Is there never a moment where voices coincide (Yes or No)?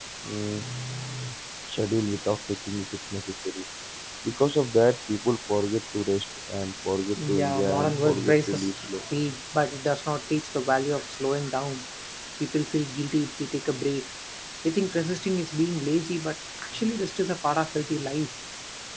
No